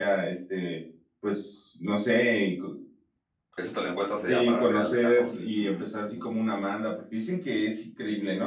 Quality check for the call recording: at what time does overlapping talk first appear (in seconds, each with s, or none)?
4.3 s